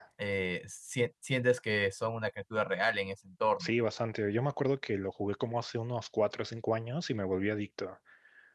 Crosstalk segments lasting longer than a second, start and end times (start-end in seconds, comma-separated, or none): none